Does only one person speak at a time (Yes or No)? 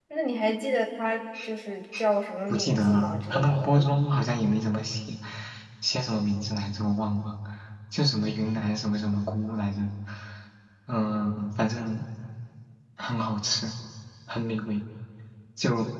No